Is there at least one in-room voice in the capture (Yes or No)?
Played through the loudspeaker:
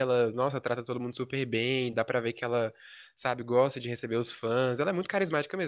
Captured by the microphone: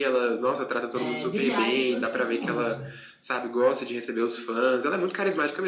Yes